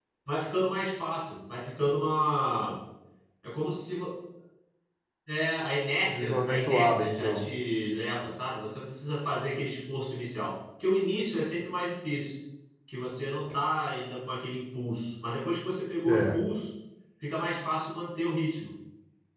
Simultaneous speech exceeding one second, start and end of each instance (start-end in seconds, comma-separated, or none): 6.1-7.4